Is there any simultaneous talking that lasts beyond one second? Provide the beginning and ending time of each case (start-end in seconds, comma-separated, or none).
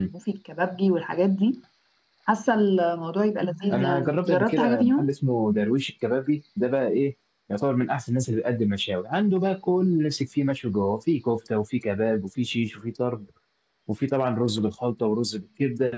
3.7-5.1